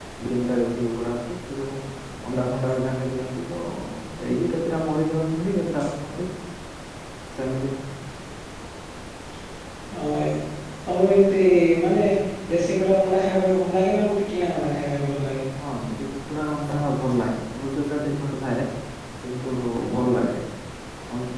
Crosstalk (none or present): none